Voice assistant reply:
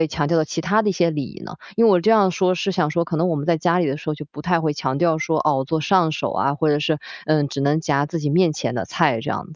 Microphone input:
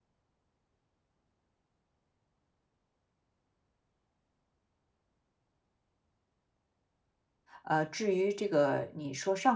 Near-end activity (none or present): present